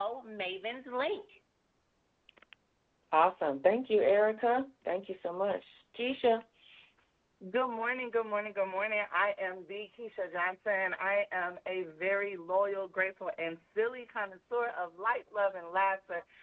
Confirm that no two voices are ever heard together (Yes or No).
Yes